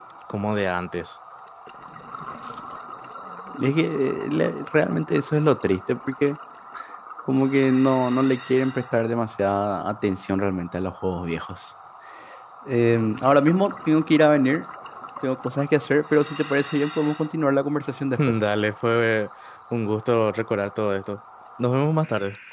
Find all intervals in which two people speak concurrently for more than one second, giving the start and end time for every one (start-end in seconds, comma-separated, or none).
none